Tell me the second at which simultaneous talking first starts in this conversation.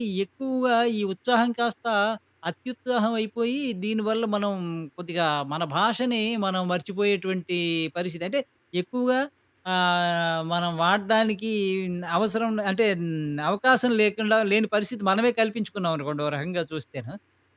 none

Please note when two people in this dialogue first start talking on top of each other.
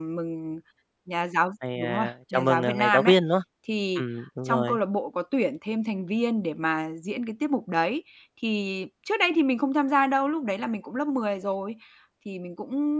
1.8 s

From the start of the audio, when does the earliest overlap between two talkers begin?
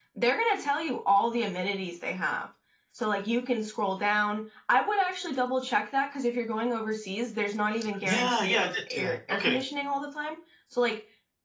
8.1 s

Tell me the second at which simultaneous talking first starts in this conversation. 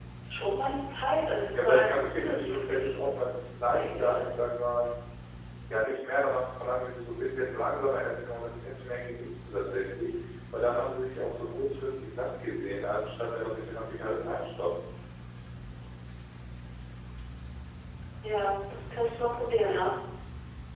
1.6 s

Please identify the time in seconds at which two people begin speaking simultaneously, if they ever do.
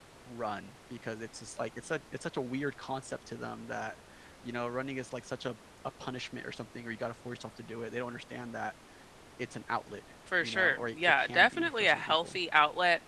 10.3 s

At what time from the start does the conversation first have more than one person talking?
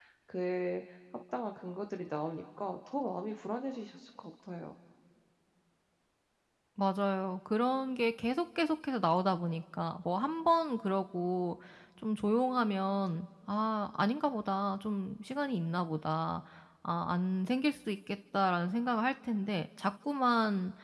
none

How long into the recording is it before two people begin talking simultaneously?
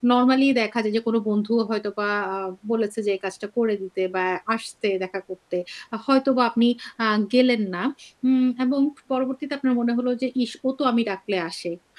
none

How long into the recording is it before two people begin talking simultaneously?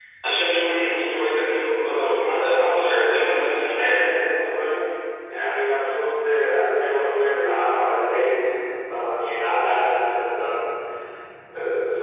2.3 s

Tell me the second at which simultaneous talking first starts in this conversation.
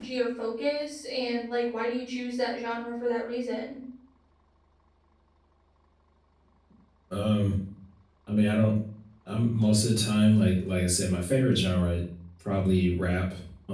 none

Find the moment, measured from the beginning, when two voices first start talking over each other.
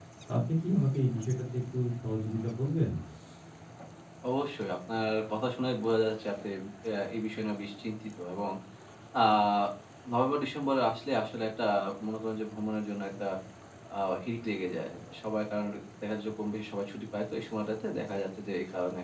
none

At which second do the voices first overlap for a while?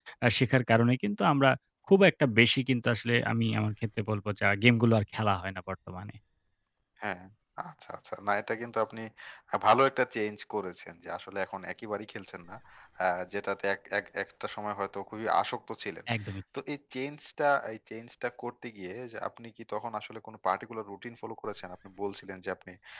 none

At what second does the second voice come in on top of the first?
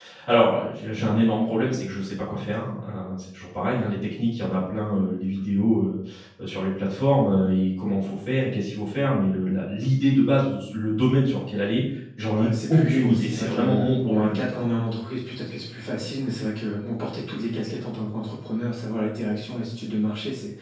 12.3 s

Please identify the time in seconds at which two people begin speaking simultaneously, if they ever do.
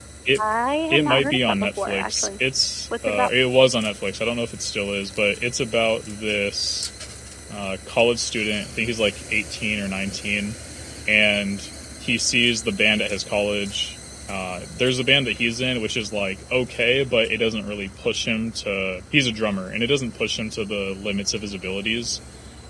0.9 s

